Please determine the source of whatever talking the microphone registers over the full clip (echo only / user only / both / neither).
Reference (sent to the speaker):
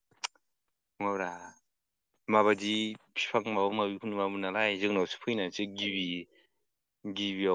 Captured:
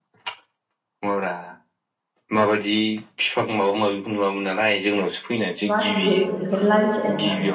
both